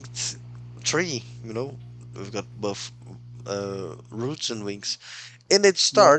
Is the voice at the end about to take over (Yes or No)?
No